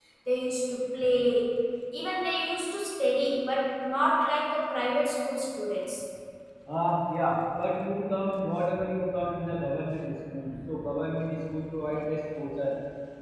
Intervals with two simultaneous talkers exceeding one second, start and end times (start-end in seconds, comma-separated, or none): none